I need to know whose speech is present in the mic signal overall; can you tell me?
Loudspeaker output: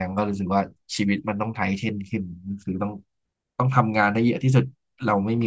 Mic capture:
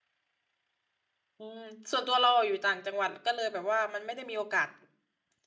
user only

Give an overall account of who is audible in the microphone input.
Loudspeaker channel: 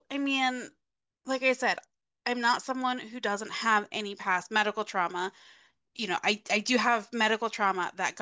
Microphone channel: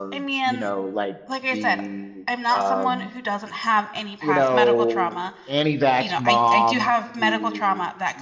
both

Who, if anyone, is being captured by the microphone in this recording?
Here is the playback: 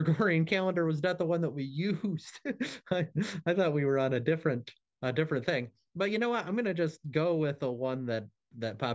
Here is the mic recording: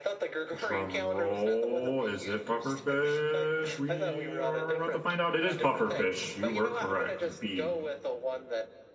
both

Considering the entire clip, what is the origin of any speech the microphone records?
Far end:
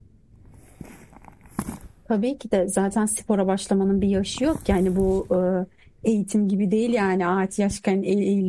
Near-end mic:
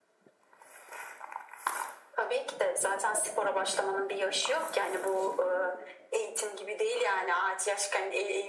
echo only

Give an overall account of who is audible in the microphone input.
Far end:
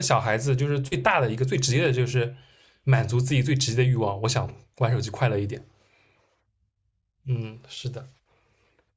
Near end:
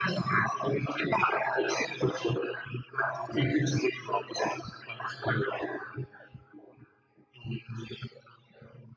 echo only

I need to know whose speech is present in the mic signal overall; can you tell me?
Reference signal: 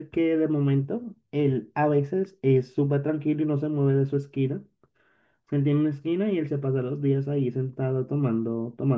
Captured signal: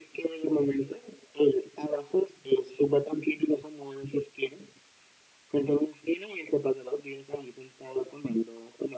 echo only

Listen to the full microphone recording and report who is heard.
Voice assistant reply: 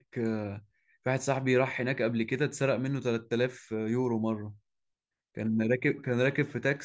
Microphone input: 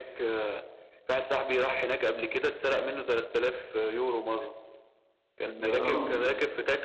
both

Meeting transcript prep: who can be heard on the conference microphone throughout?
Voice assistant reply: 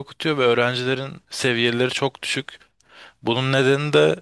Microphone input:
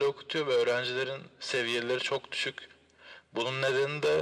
echo only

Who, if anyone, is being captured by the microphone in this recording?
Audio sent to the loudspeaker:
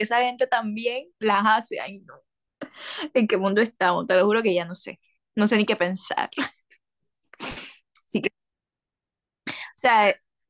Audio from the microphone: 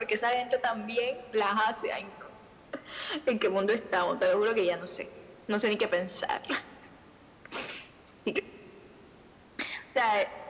echo only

